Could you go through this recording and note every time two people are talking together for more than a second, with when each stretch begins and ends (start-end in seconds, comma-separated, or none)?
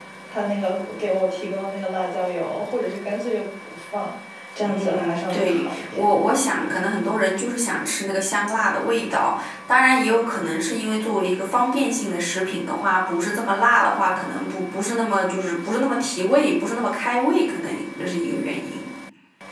4.6-6.0